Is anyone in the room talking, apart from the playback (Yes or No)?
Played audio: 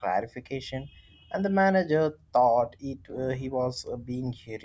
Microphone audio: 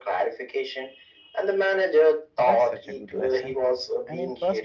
Yes